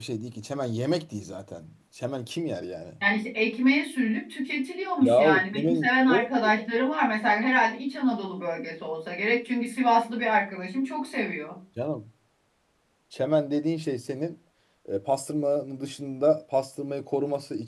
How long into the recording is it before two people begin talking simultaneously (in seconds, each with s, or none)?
5.0 s